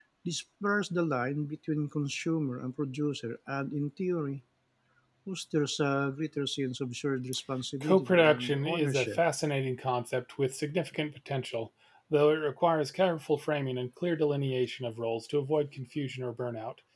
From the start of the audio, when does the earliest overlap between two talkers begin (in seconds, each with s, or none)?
7.8 s